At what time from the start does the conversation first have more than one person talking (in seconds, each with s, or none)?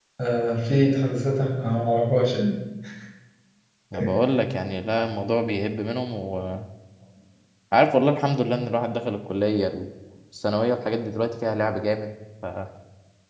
none